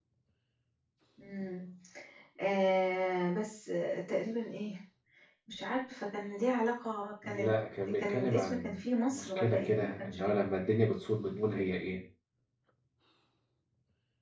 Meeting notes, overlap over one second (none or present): present